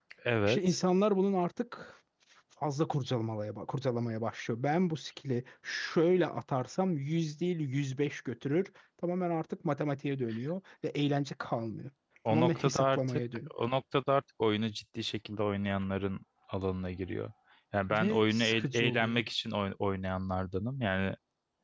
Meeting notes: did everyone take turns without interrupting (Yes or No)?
No